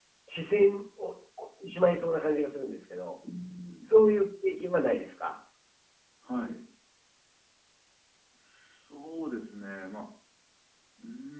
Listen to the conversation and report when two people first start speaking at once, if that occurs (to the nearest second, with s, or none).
none